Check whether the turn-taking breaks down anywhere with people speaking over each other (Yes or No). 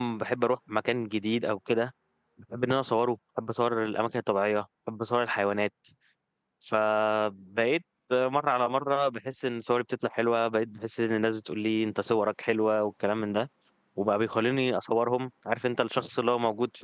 No